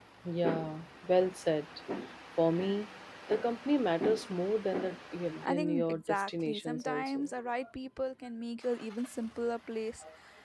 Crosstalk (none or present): present